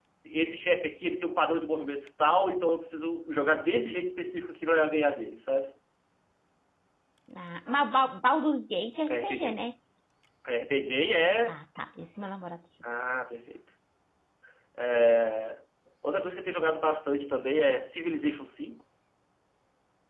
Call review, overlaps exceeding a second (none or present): none